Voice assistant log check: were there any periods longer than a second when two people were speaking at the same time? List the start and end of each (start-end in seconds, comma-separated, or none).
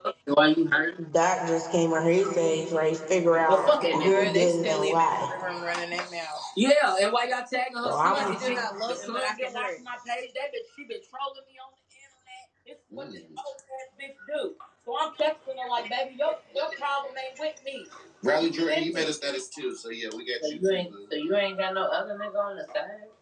3.4-5.3